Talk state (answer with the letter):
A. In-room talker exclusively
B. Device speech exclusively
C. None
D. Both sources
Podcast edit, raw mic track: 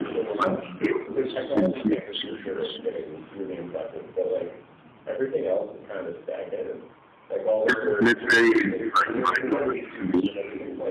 D